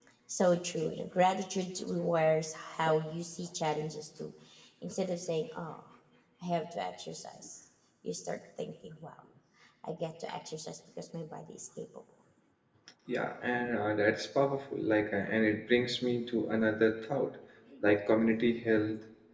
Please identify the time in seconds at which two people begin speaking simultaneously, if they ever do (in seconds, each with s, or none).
none